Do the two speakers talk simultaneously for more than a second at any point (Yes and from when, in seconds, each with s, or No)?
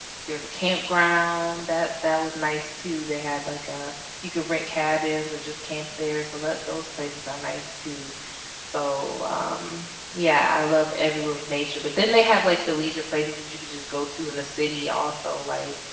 No